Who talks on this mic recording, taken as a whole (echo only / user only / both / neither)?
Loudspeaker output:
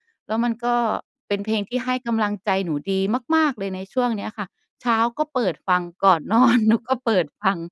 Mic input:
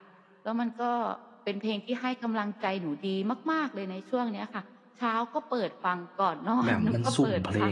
both